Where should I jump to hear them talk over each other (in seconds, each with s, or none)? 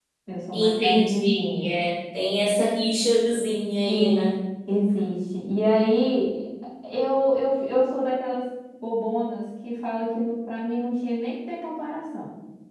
0.5 s